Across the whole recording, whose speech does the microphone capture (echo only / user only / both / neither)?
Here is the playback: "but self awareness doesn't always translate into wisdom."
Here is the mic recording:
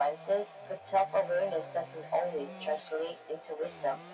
echo only